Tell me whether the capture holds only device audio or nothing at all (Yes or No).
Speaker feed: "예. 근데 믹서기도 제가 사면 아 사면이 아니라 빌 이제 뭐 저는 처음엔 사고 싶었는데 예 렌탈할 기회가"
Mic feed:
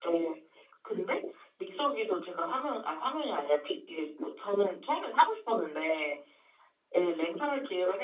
Yes